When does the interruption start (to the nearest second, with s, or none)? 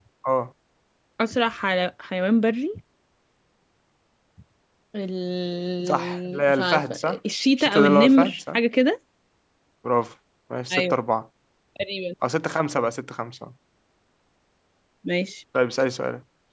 6 s